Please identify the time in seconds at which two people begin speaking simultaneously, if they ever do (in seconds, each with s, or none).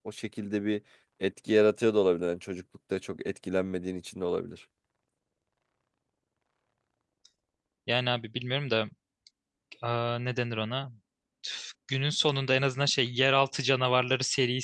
none